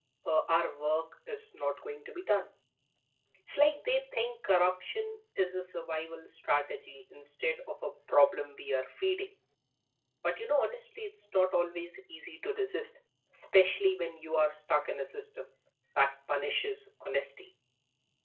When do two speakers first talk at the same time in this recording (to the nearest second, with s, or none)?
none